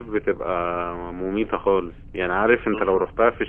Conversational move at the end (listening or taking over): listening